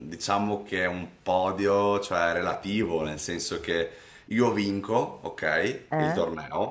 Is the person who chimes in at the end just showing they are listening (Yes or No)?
Yes